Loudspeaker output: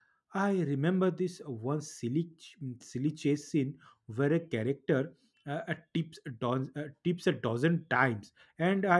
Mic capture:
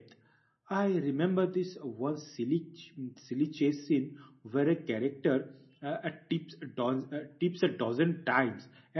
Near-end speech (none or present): none